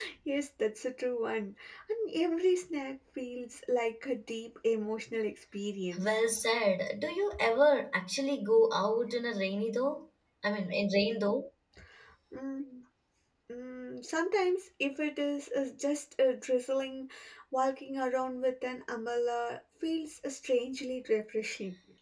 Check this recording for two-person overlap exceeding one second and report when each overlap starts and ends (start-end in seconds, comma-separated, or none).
none